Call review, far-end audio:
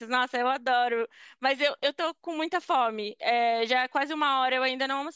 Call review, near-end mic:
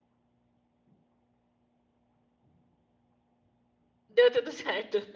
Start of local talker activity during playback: 4.1 s

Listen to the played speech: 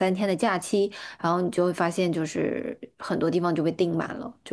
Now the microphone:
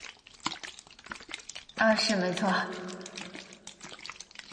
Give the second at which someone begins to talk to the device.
1.8 s

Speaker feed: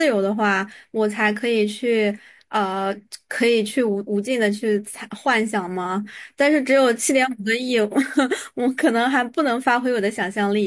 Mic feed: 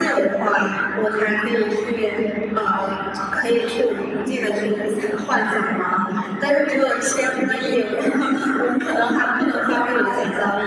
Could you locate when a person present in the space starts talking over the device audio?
none

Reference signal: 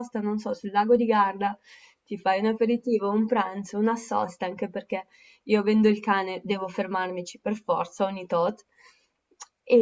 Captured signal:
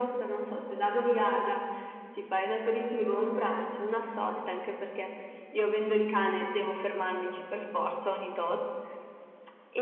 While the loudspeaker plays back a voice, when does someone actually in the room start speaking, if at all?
none

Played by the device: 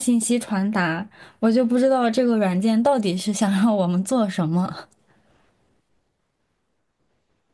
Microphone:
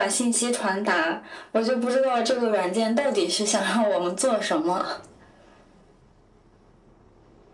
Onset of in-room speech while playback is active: none

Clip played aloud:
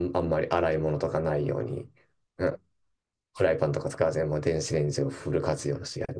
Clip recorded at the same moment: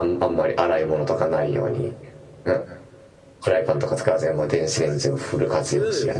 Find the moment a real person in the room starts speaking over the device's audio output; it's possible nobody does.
4.7 s

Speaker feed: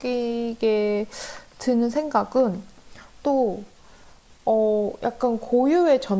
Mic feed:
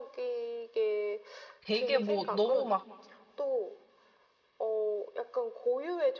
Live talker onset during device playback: 1.6 s

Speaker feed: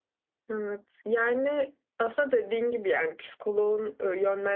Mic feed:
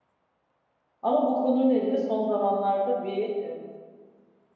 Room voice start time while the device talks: 1.0 s

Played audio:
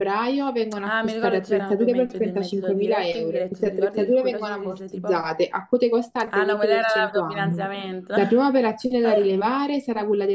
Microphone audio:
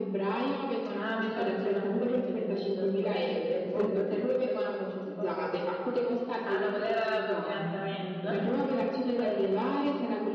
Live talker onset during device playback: 3.6 s

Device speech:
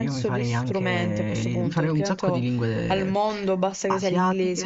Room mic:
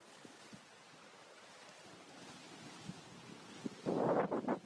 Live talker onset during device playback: none

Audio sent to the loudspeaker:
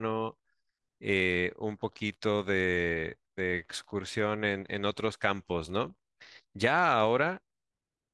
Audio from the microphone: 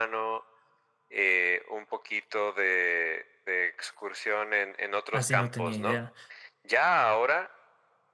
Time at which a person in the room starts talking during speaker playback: 5.1 s

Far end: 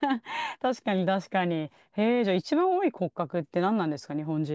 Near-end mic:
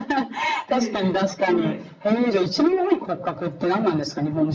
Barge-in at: 0.7 s

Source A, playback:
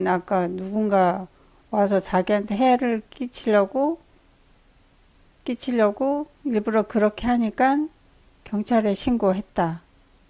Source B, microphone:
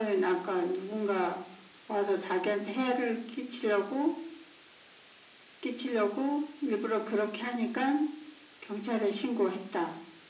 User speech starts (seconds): none

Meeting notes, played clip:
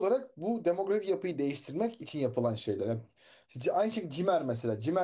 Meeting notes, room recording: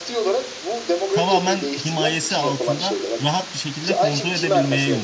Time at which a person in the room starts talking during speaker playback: 1.1 s

